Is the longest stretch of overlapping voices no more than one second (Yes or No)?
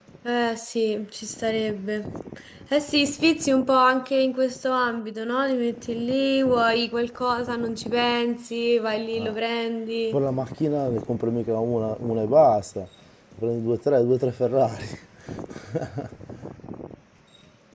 Yes